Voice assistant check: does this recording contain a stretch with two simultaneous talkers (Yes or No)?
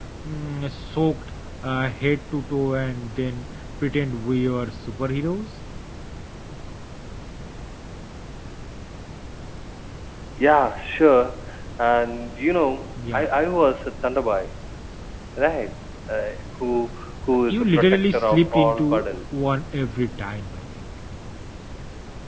Yes